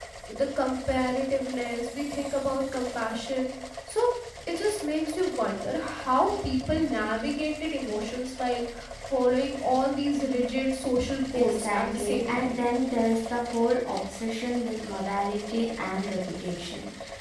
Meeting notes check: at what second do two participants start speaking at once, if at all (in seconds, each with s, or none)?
11.3 s